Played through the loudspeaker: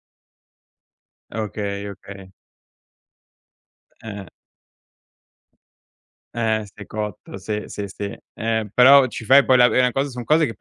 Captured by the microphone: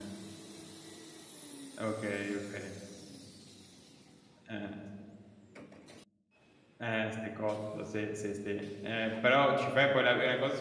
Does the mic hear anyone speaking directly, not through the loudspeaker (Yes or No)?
No